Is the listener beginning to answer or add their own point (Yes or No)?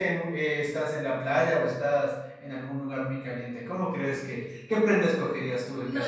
Yes